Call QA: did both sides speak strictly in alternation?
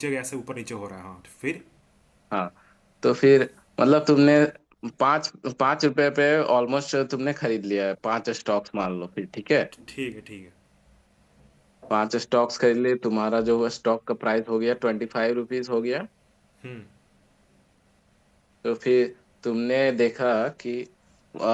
Yes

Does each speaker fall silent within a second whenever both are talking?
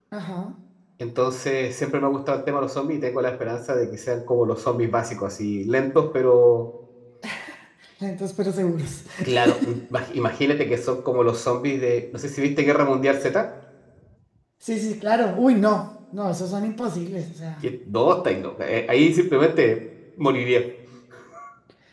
Yes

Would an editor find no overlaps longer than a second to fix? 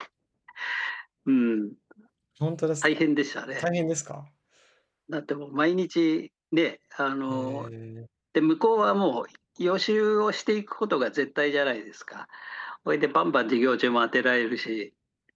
Yes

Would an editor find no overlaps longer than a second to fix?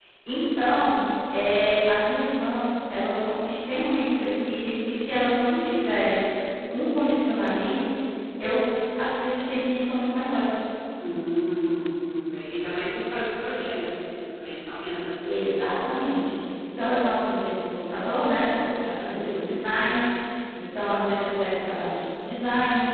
Yes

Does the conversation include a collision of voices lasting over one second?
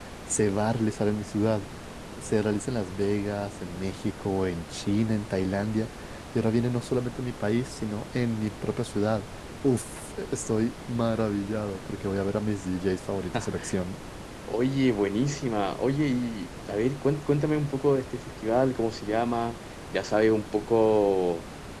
No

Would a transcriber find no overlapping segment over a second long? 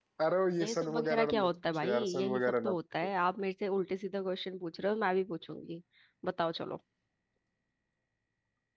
No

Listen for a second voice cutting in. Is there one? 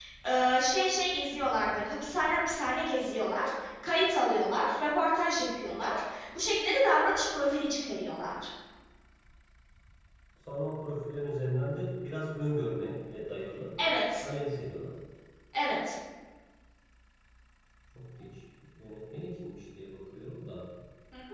No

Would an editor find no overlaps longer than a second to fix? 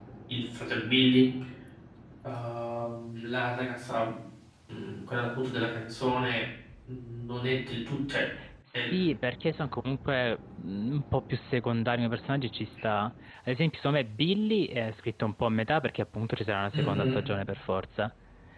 Yes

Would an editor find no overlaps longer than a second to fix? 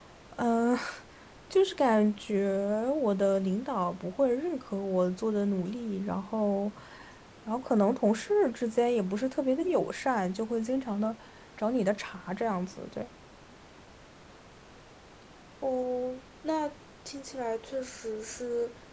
Yes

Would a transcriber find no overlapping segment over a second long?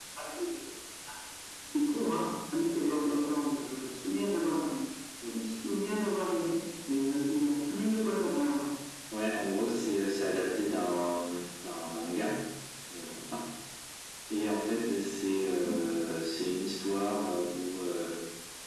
Yes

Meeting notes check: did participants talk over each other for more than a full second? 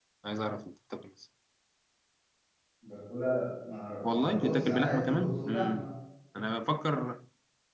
Yes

